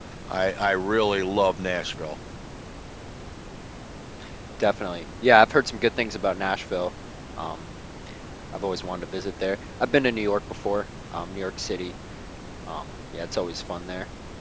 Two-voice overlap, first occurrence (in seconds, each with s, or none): none